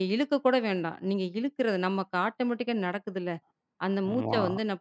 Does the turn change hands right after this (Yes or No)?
No